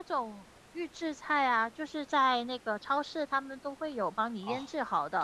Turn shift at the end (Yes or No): Yes